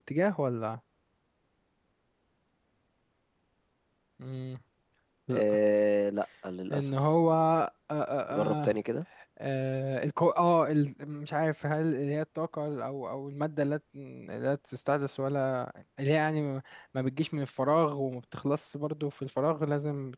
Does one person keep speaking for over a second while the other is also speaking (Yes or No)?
No